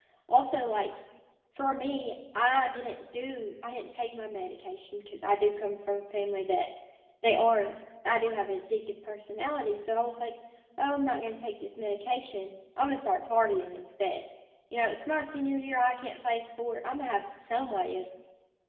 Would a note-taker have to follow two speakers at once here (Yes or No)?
No